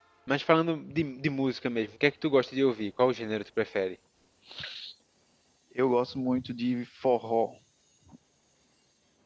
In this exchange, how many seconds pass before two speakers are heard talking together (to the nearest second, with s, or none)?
none